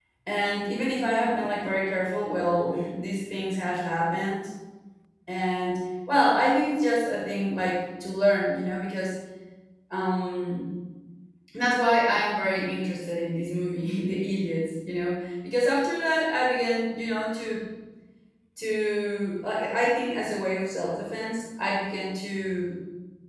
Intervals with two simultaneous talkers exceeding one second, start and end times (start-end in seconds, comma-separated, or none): none